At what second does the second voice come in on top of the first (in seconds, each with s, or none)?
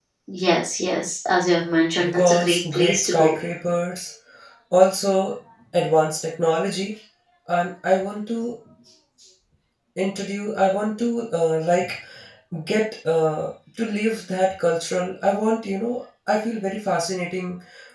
2.0 s